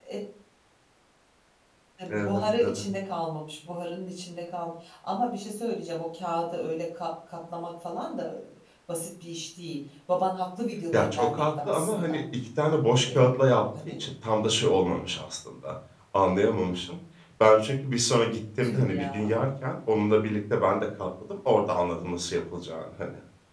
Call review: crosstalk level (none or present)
present